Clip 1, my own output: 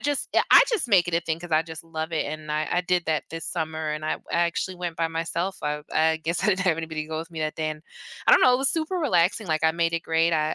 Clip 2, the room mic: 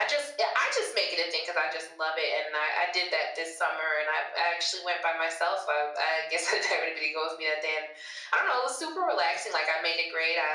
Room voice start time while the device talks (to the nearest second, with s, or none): none